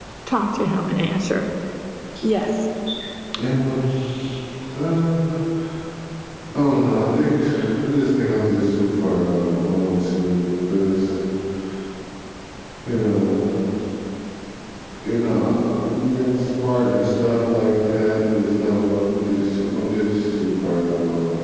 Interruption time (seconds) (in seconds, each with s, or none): none